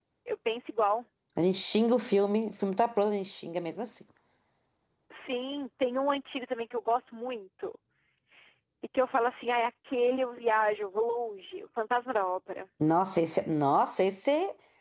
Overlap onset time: none

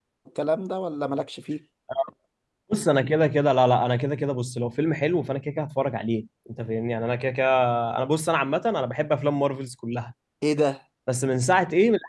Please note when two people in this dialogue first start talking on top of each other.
none

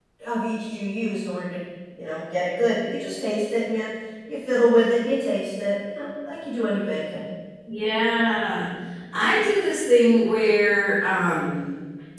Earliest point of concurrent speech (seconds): none

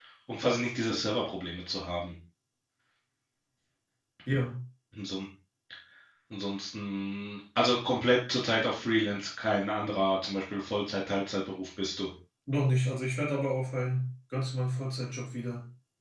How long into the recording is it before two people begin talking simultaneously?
none

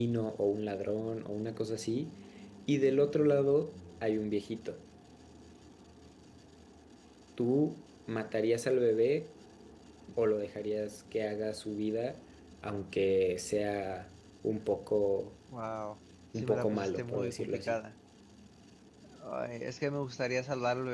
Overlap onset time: 16 s

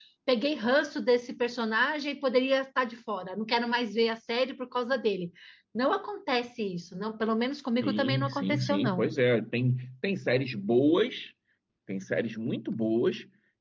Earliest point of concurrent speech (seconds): 8 s

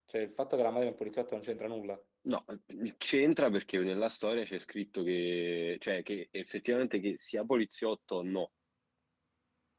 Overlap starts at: none

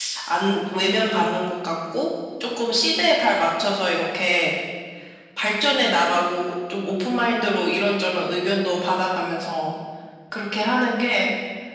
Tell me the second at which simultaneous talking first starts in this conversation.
none

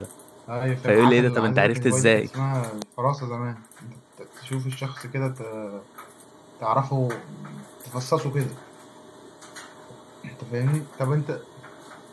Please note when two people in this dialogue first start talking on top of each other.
1 s

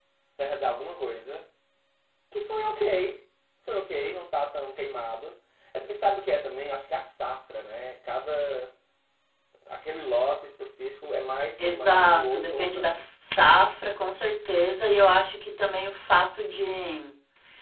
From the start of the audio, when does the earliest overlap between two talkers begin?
12 s

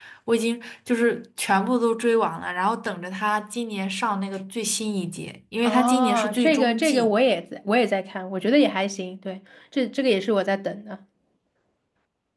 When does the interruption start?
6 s

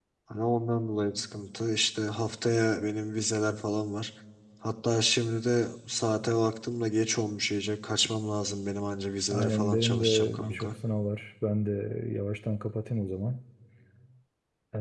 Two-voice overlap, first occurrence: 9 s

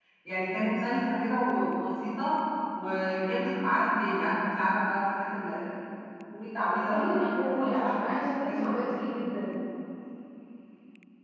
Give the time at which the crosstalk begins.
7 s

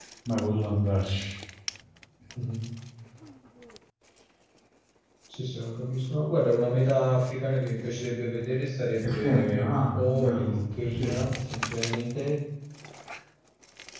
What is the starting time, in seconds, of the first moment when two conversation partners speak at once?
9 s

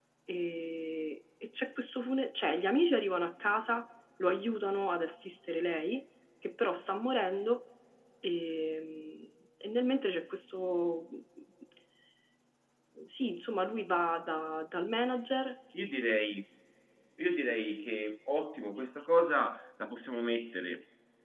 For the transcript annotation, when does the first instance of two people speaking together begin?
none

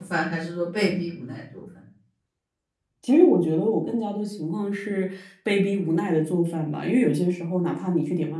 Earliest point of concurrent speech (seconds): none

